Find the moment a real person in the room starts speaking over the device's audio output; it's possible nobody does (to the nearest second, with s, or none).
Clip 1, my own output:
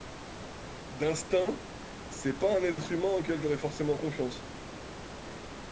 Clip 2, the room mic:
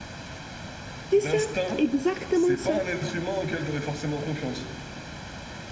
1 s